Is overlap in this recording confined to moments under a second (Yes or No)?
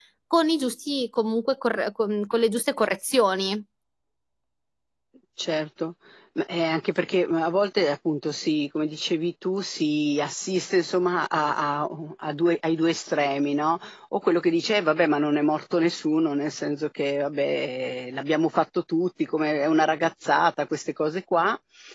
Yes